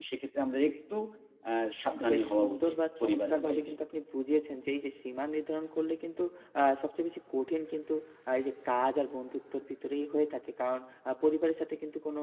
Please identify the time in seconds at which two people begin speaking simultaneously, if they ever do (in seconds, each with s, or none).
1.9 s